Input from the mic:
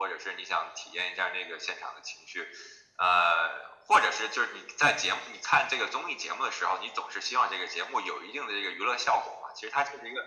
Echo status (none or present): present